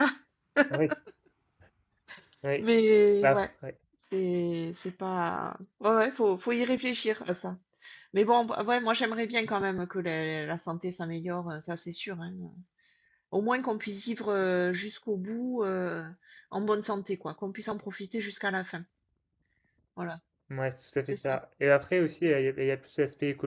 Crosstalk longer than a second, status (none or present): none